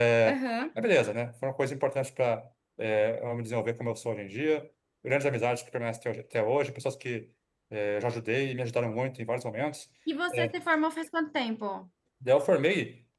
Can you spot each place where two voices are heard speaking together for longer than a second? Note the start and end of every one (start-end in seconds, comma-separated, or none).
none